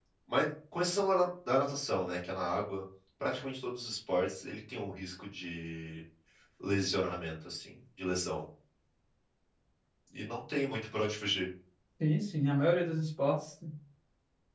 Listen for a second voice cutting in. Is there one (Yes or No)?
No